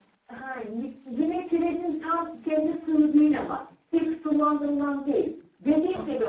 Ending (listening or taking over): listening